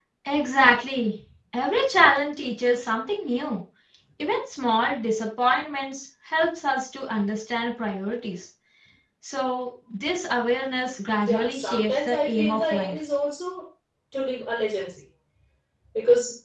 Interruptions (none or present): present